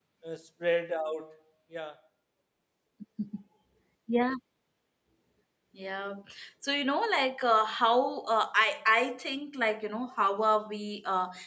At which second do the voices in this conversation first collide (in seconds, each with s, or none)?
none